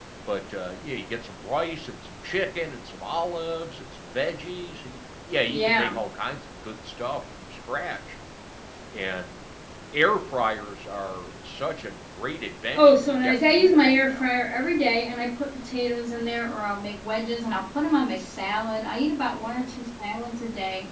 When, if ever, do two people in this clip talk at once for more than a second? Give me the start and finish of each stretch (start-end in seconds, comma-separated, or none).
12.7-14.3